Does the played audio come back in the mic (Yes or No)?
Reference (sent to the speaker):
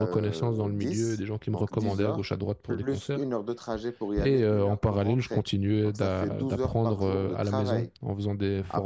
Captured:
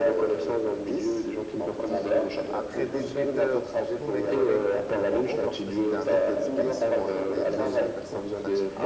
Yes